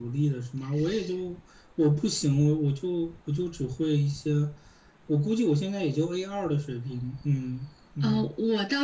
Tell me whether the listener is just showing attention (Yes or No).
No